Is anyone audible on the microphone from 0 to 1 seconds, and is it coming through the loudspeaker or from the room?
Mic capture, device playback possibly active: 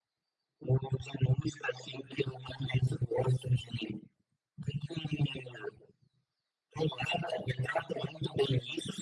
echo only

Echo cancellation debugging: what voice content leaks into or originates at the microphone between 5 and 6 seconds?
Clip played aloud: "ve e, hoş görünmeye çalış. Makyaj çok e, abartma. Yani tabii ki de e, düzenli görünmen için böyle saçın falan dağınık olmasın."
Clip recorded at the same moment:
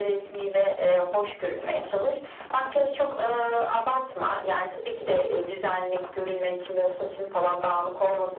echo only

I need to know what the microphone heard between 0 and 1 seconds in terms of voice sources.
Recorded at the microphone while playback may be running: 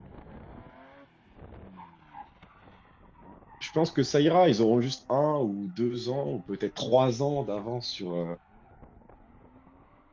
neither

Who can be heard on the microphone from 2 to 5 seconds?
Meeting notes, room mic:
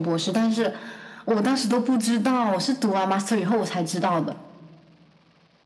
echo only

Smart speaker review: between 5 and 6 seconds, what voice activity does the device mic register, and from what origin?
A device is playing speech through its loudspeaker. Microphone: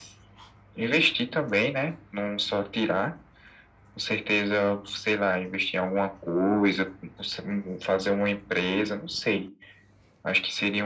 echo only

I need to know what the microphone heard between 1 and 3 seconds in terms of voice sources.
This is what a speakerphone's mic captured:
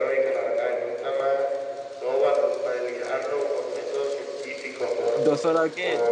echo only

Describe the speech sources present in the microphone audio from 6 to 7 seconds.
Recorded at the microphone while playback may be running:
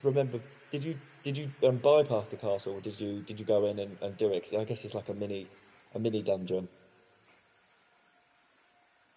user only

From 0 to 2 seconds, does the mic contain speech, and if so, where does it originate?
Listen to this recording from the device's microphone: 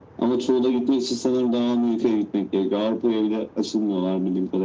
echo only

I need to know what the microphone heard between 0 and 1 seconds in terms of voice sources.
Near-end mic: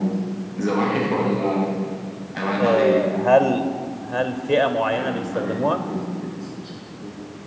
echo only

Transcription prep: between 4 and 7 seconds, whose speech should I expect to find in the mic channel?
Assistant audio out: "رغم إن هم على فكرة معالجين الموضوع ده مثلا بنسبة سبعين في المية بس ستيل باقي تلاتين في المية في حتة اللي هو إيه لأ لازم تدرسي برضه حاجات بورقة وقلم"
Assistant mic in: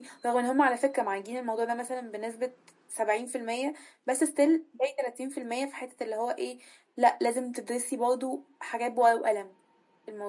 echo only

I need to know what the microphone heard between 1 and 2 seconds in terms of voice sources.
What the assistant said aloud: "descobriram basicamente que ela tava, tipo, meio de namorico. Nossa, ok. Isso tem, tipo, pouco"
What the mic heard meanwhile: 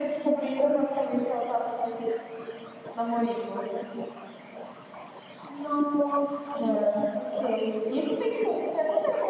echo only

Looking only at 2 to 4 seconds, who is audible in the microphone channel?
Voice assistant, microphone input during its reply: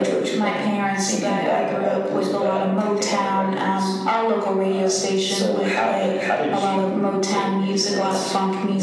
echo only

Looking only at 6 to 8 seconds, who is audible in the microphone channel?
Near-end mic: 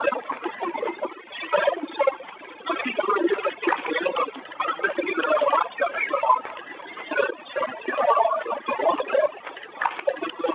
echo only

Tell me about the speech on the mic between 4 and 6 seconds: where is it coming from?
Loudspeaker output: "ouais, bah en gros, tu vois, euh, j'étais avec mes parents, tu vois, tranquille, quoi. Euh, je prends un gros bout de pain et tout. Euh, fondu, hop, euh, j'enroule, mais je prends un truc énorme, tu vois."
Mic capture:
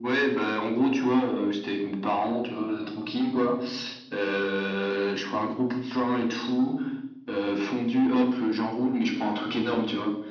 echo only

